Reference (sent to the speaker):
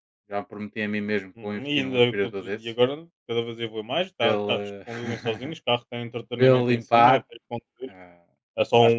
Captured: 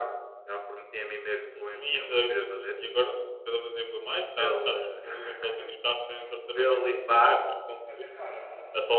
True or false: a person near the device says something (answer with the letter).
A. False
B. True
B